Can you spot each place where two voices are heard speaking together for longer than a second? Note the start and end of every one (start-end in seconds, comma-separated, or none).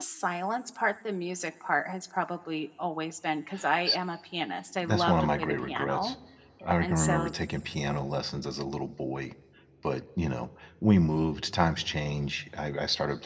4.8-6.1